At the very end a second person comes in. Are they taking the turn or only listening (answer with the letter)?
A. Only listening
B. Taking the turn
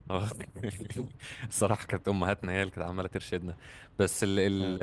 A